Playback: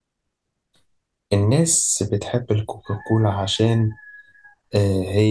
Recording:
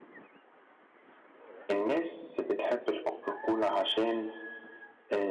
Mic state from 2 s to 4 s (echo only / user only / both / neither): echo only